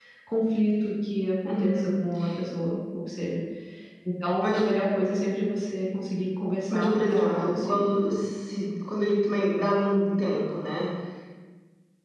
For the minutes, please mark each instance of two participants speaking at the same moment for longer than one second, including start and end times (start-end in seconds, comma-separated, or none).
6.7-7.9